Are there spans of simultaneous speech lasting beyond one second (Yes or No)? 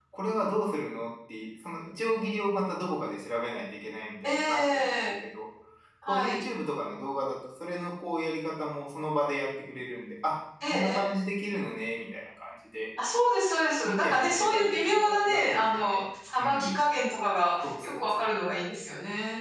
Yes